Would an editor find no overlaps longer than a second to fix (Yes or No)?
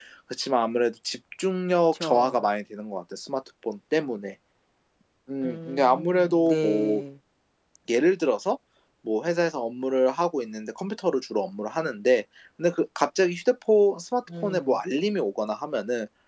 No